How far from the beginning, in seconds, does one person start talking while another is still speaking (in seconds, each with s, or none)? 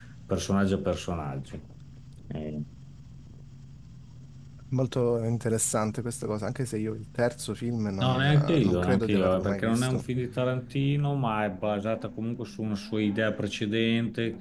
8.0 s